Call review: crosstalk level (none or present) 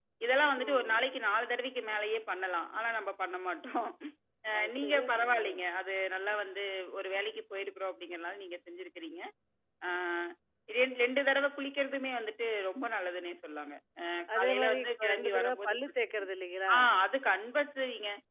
present